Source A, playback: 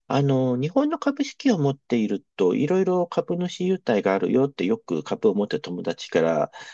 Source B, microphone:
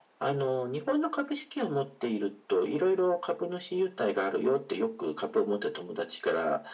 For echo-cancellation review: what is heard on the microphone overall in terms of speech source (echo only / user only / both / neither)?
echo only